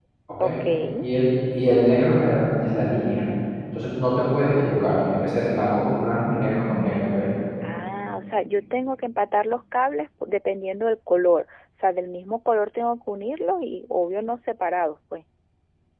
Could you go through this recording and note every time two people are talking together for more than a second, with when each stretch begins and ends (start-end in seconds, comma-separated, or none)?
none